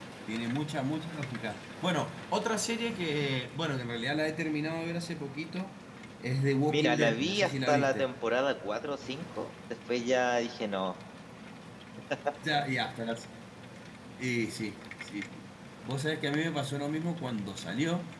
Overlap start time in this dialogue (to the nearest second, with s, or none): 7 s